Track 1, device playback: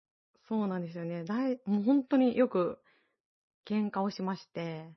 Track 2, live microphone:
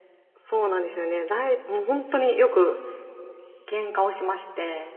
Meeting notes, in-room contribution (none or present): none